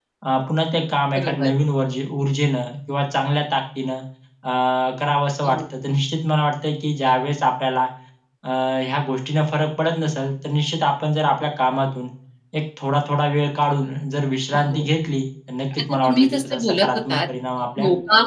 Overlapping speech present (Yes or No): Yes